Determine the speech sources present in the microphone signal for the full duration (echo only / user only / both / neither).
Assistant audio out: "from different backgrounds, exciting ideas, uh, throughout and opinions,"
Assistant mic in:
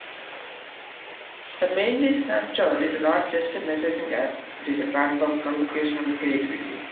user only